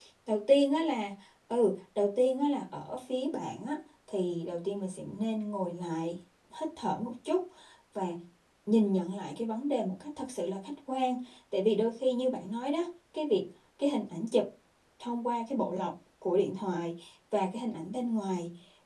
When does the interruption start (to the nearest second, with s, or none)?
none